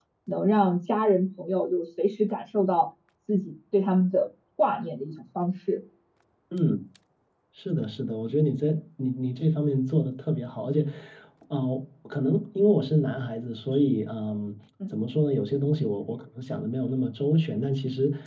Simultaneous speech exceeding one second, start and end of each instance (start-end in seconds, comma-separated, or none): none